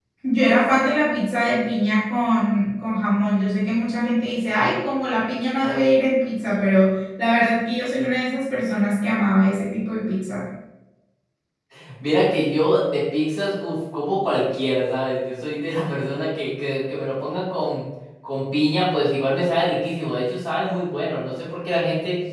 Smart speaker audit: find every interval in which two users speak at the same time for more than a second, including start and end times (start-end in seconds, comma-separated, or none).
none